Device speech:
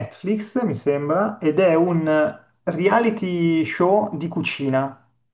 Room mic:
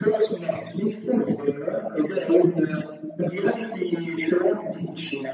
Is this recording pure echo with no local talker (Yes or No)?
Yes